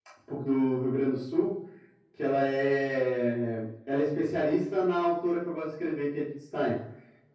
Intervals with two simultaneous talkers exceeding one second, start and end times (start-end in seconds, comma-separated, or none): none